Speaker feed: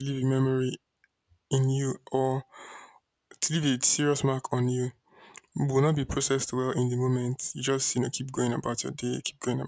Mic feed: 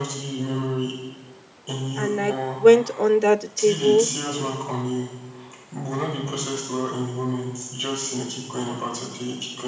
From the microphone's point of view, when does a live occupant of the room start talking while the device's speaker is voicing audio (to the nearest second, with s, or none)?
2 s